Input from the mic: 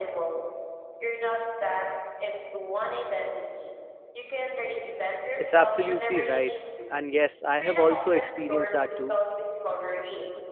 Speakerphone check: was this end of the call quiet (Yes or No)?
No